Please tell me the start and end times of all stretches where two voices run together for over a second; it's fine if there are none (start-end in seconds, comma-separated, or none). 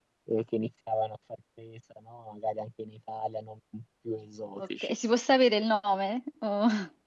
none